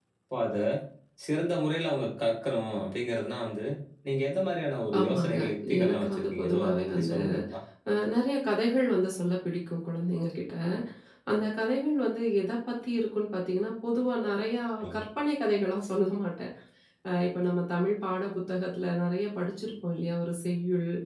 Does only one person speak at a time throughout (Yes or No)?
No